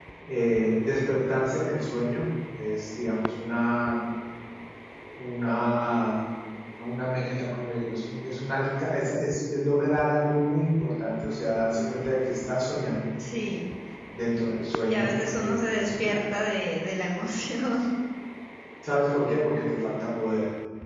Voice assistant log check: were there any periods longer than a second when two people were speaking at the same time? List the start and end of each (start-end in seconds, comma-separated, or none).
14.9-16.1